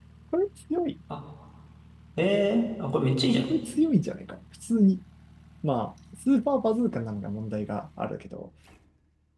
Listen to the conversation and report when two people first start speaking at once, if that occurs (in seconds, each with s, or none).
none